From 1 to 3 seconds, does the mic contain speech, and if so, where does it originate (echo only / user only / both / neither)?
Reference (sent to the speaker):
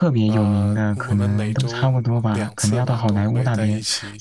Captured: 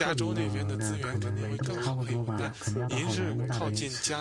both